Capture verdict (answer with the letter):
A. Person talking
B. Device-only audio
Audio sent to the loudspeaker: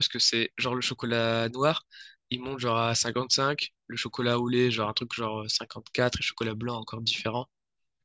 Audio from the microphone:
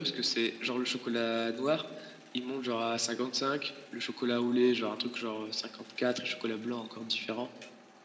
B